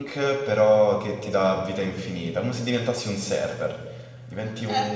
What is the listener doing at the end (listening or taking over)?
taking over